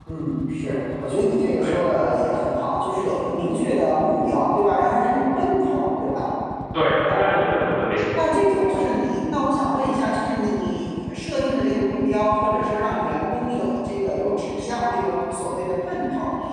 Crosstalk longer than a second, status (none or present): none